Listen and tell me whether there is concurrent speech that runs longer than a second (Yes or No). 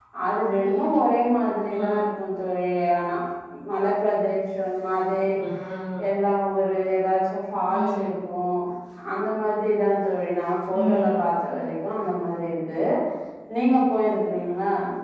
No